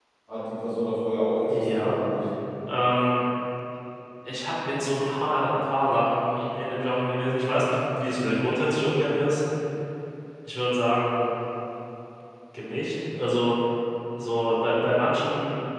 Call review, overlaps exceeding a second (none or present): none